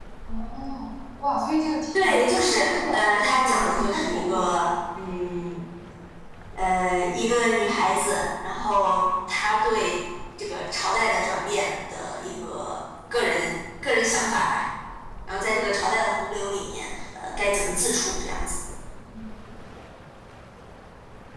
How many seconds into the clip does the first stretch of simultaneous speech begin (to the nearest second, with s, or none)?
2 s